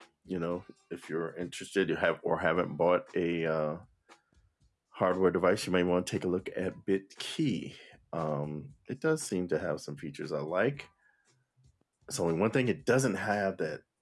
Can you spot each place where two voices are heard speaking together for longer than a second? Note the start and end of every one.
none

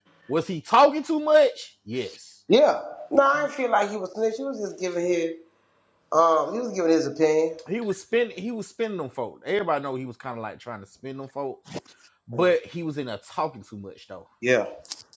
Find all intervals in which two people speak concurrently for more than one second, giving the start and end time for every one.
none

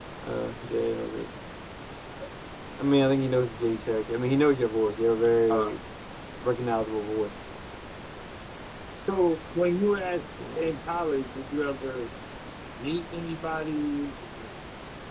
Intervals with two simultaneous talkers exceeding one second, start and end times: none

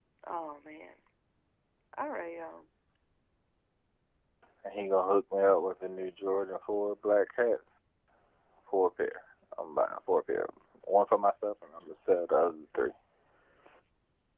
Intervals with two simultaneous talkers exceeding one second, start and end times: none

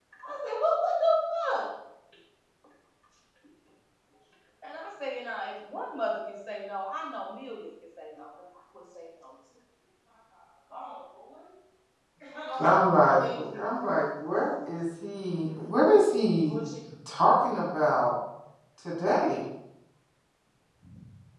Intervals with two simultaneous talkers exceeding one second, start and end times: 12.6-14.4

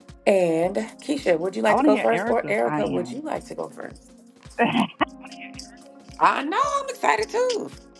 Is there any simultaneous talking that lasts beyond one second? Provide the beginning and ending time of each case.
1.7-3.2

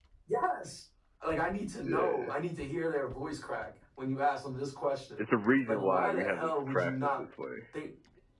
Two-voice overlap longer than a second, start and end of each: 5.7-7.2

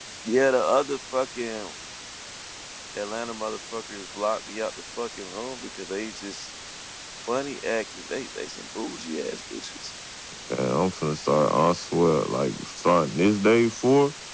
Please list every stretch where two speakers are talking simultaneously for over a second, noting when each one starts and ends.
none

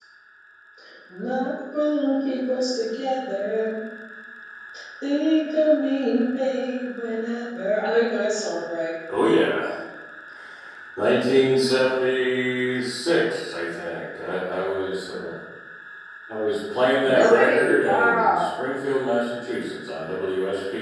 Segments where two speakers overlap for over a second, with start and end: 17.0-18.5

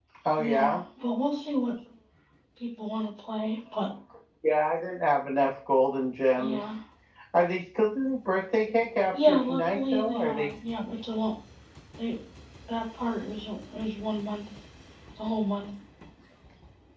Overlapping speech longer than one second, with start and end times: 9.1-10.5

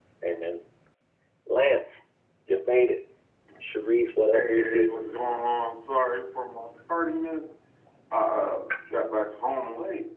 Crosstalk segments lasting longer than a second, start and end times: none

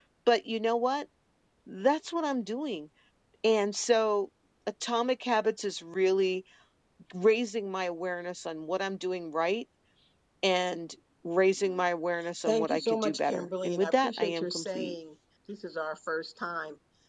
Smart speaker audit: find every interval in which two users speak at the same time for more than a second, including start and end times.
12.5-14.9

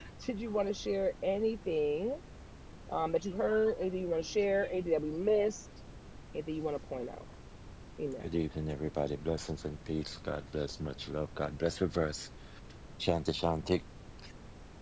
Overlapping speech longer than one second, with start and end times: none

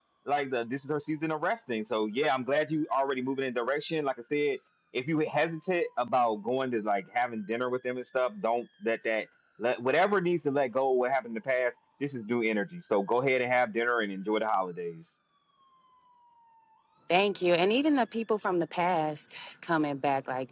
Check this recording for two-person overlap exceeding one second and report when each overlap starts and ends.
none

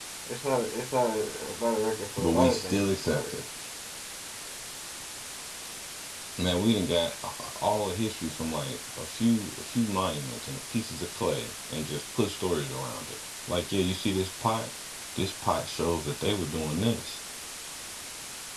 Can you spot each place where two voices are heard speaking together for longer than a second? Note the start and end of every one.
2.2-3.4

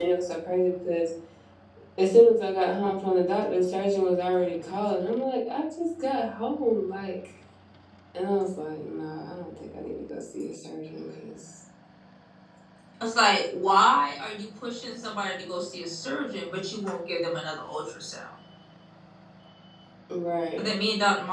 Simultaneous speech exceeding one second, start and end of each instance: none

